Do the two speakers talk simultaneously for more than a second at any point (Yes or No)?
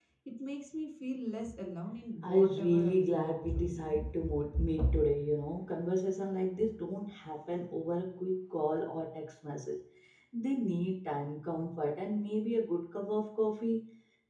Yes